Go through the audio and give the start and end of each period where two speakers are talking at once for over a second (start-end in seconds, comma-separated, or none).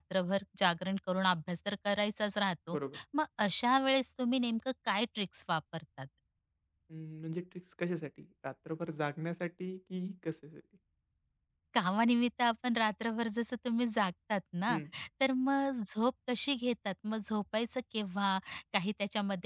none